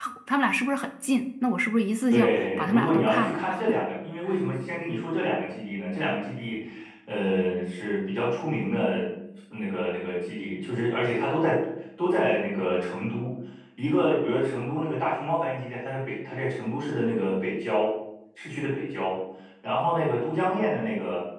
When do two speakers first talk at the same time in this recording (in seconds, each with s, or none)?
2.1 s